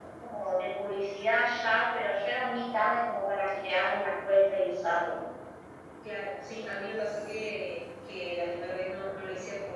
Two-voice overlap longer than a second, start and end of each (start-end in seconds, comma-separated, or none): none